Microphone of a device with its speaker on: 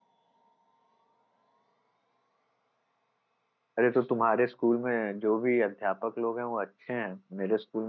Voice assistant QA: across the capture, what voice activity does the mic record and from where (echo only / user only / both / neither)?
user only